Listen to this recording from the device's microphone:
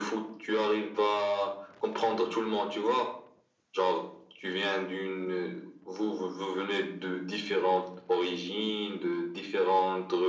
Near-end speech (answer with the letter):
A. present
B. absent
B